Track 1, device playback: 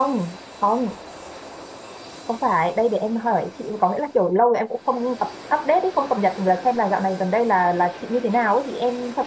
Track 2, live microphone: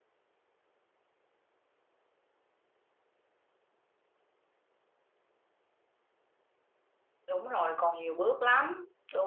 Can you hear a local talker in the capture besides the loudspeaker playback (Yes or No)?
Yes